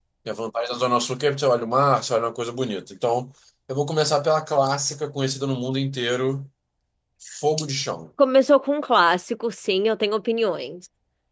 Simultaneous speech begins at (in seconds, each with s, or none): none